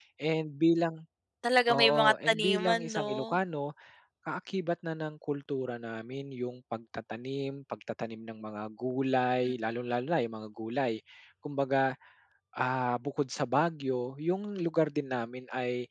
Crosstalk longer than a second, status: present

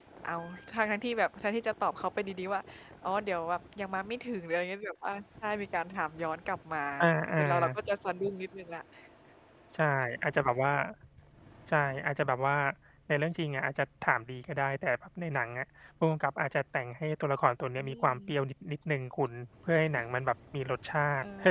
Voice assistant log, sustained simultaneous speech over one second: none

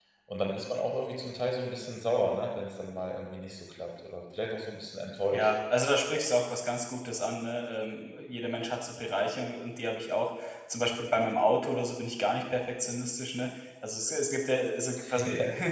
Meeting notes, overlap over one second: none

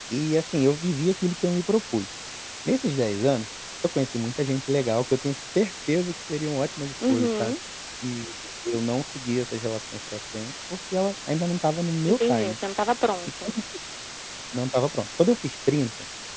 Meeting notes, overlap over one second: none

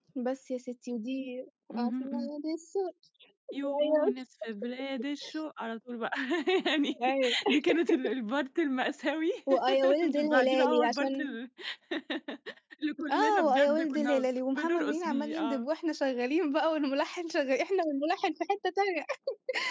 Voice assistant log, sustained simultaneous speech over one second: present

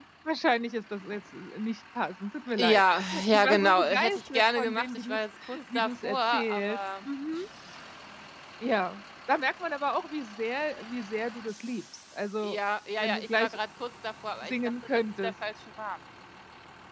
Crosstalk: present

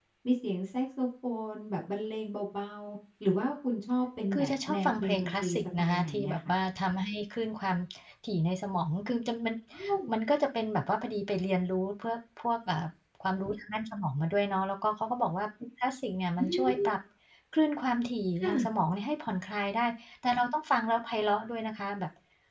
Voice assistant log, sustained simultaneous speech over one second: present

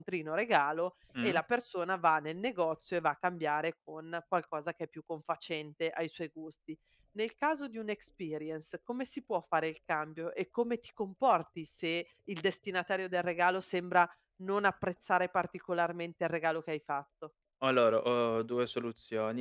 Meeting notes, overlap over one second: none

